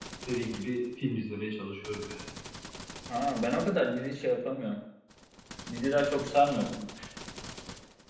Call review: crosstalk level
none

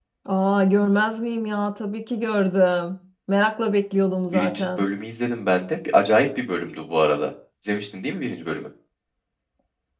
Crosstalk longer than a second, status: none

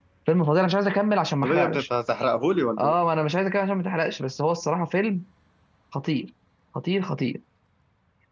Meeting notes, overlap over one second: none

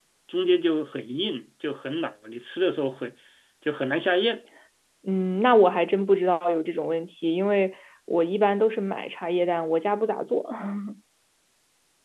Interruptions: none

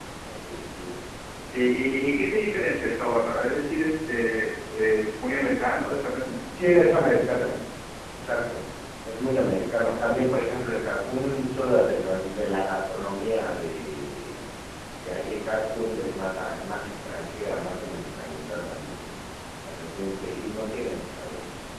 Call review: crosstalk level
none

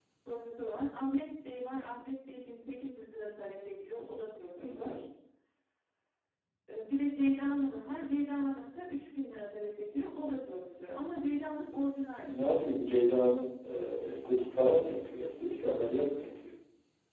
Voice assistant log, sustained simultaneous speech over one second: none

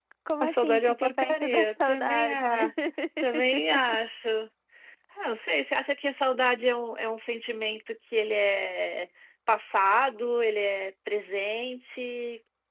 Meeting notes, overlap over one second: present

